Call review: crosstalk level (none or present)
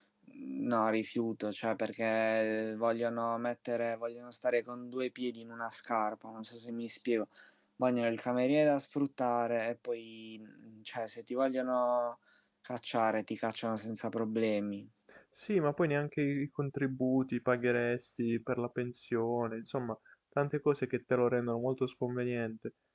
none